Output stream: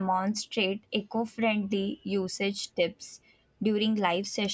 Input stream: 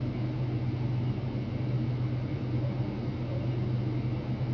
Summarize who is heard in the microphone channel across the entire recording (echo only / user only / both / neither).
neither